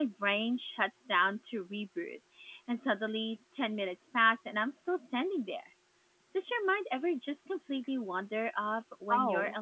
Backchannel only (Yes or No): No